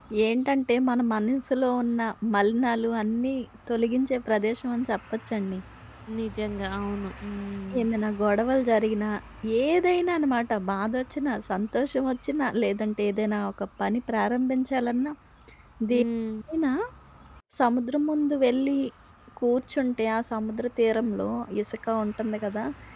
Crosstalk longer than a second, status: none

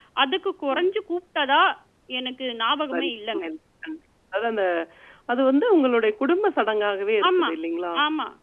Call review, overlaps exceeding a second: none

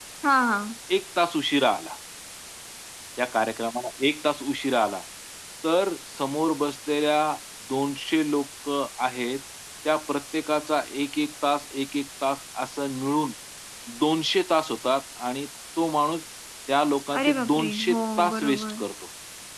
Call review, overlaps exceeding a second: present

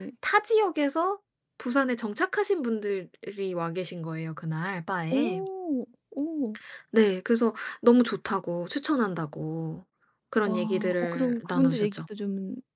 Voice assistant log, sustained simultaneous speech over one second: present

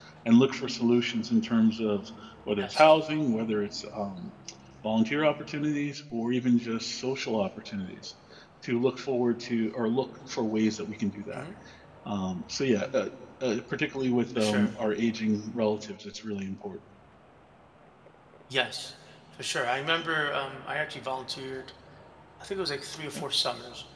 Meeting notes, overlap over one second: none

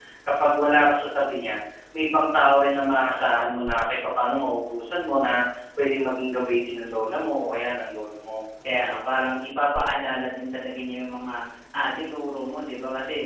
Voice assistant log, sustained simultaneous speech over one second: none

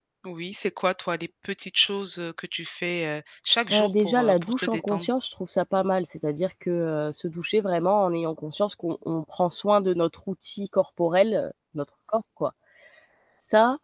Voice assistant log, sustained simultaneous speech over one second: present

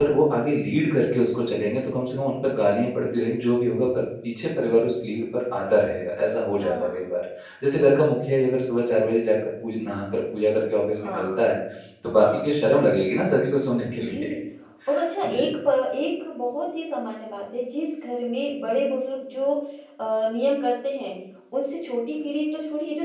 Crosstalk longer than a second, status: none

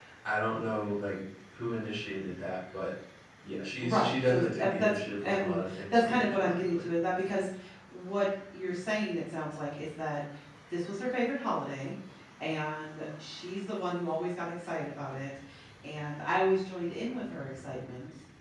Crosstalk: present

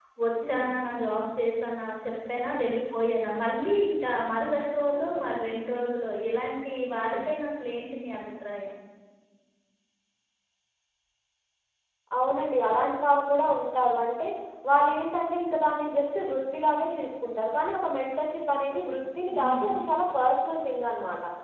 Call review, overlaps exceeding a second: none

